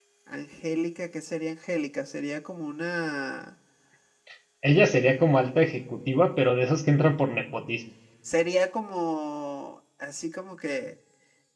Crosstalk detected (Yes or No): No